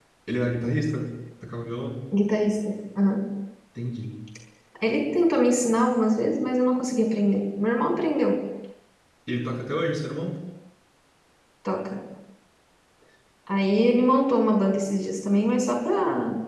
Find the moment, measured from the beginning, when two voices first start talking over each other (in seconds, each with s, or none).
none